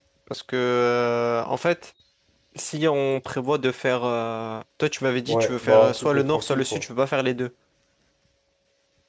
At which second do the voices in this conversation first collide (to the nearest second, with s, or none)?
5 s